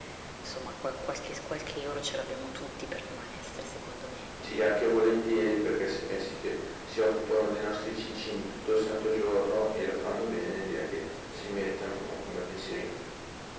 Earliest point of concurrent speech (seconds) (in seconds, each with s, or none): none